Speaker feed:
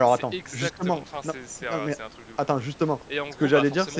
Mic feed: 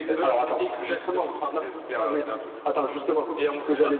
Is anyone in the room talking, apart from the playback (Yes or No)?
No